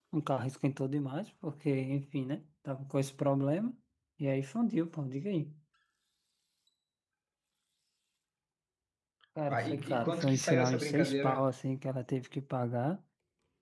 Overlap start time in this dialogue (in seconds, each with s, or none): 9.5 s